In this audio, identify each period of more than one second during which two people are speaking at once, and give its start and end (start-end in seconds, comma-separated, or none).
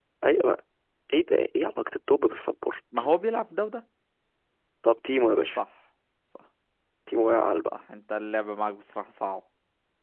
none